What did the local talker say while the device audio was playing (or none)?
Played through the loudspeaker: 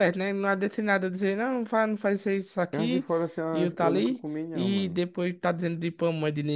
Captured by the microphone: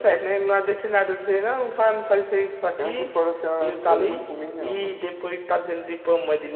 none